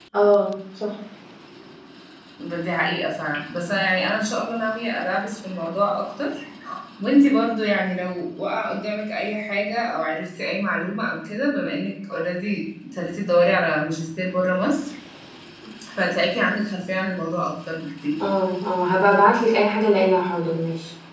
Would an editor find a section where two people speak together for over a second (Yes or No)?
No